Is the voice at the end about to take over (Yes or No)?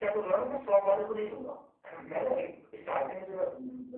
No